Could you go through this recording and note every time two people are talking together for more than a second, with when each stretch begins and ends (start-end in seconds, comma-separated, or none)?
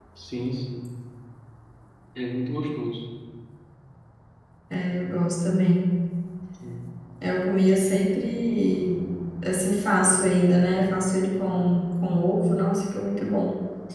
none